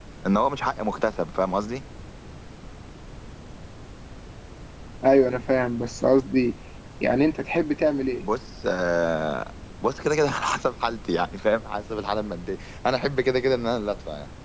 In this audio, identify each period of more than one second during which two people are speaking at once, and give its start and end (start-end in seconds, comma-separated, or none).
none